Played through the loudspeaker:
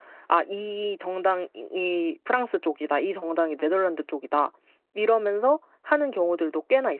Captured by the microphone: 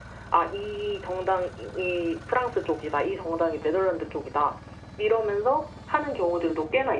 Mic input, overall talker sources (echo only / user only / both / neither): echo only